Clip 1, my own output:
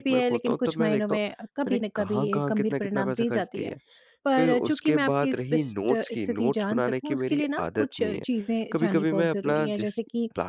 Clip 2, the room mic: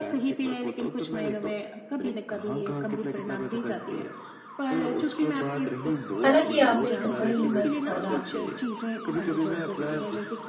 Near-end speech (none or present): present